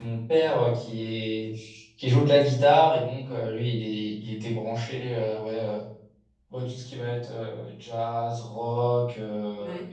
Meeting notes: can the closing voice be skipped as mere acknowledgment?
Yes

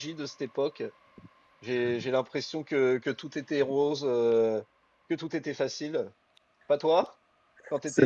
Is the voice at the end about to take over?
Yes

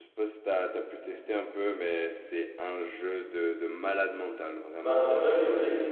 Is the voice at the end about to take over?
Yes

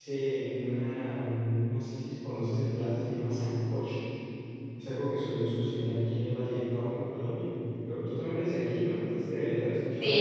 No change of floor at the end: No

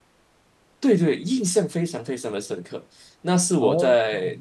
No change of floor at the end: Yes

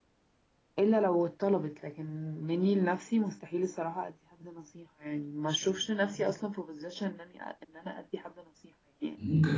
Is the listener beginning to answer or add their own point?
Yes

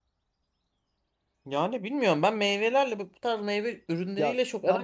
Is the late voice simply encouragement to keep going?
No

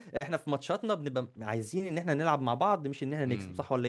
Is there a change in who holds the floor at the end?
Yes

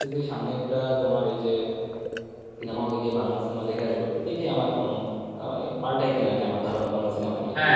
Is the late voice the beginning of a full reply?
Yes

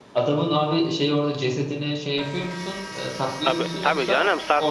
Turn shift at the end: Yes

